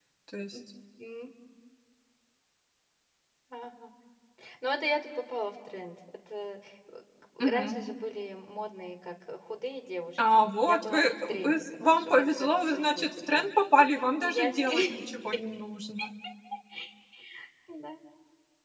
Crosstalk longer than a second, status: present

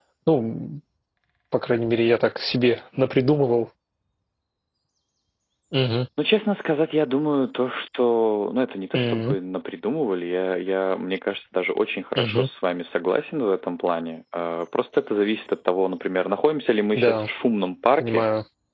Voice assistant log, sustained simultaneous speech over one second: none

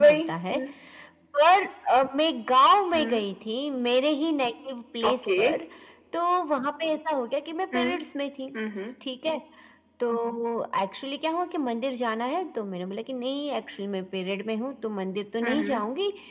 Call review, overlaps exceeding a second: none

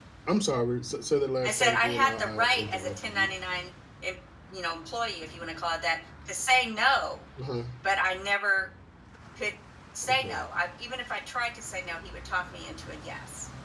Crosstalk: present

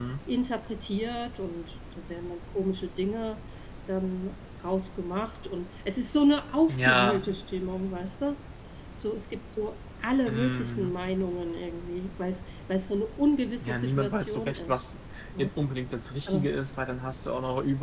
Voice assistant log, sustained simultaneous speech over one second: present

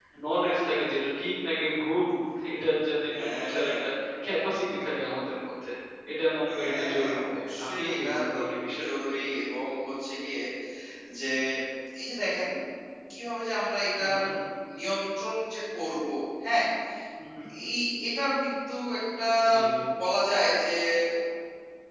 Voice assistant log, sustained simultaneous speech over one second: present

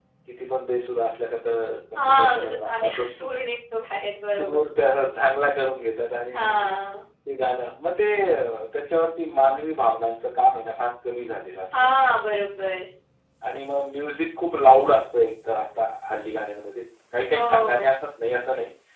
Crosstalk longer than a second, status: present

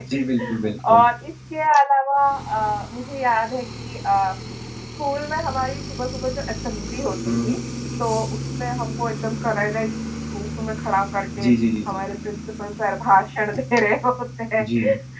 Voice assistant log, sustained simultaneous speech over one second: none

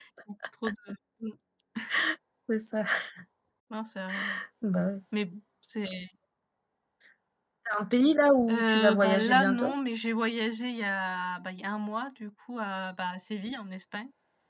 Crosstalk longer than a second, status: present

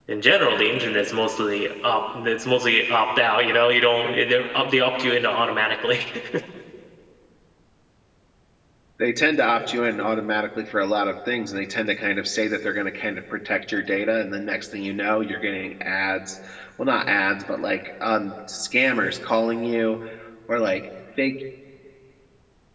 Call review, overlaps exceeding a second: none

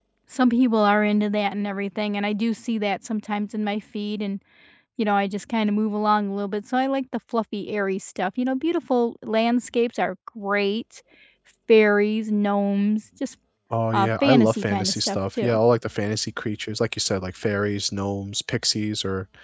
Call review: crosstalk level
present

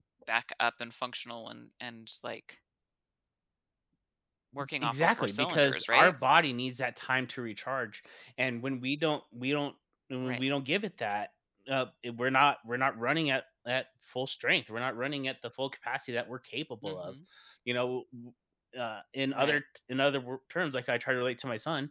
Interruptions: present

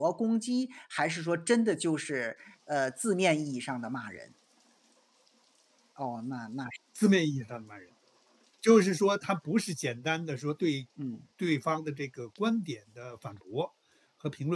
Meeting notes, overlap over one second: none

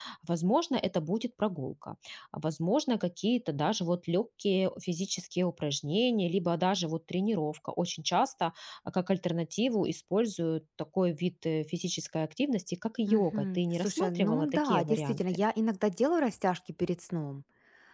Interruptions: present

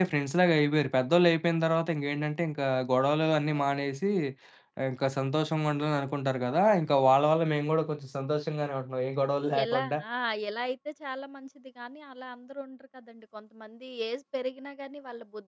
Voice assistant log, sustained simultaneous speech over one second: none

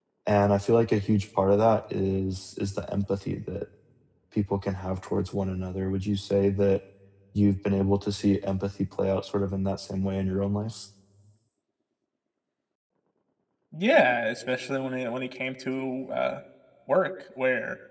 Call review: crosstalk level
none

